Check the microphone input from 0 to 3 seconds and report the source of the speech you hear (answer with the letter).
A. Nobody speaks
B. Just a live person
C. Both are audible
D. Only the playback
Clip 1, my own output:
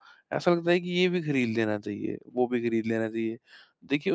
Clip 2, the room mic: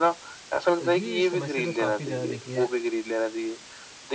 C